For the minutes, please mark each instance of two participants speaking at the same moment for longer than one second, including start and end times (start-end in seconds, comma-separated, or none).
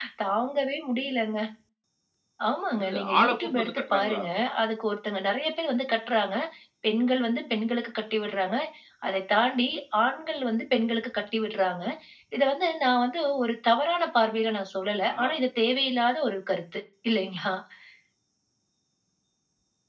2.7-4.2